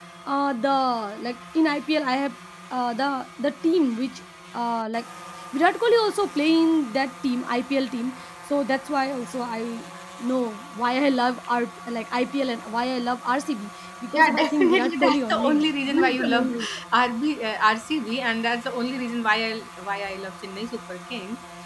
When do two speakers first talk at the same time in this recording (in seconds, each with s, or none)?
14.1 s